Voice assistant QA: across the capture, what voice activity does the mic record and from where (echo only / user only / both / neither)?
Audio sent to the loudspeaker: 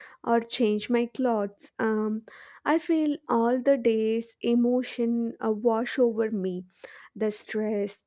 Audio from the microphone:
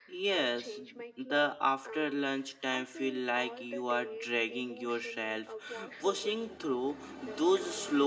both